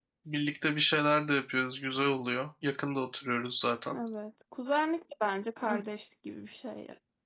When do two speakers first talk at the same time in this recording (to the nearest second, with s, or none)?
none